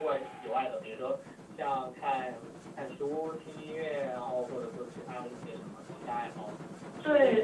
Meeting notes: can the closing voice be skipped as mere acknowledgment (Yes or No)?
No